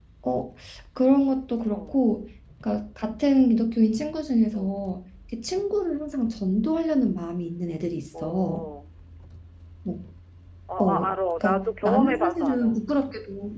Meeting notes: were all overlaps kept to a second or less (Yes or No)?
No